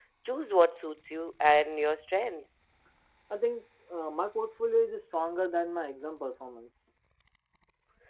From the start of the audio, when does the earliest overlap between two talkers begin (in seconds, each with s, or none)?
none